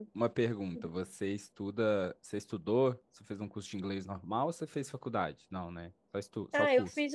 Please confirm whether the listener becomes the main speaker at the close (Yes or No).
Yes